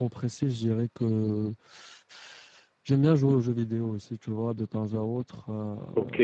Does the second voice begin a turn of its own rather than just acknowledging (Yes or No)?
Yes